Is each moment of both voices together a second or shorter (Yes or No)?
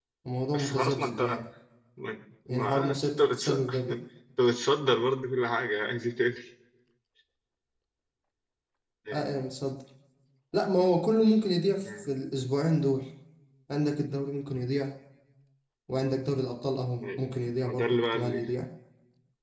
No